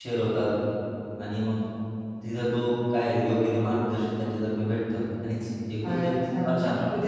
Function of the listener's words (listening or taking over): taking over